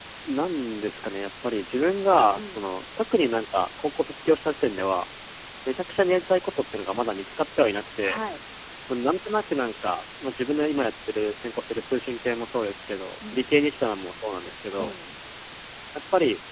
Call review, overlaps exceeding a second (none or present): none